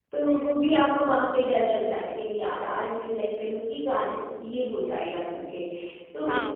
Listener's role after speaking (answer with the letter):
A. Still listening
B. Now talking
B